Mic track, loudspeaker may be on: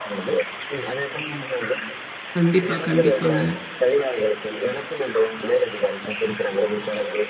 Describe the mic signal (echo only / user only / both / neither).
both